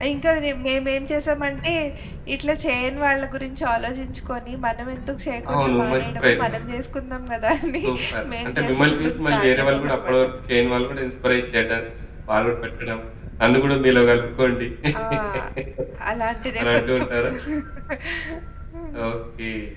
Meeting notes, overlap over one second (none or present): present